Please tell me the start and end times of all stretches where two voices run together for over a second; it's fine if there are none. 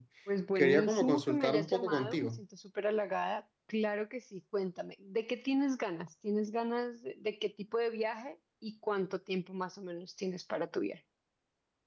0.6-2.4

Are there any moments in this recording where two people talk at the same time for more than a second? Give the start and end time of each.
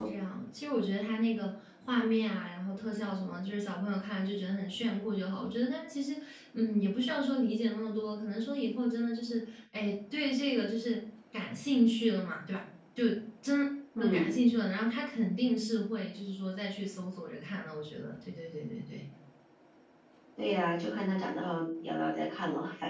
none

